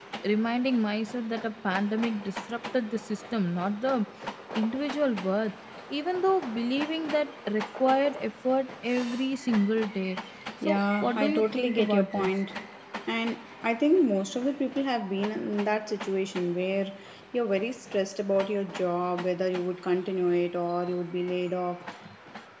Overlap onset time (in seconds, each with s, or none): 10.7 s